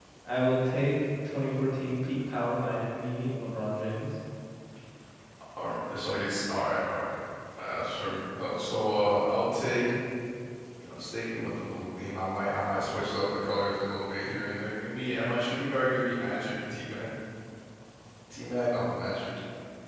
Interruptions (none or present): none